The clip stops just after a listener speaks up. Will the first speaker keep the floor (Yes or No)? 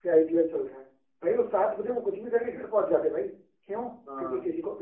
Yes